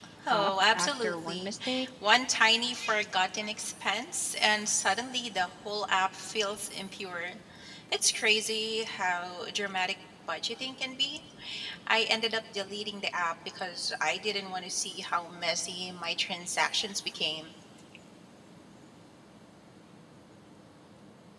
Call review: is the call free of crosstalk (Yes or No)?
No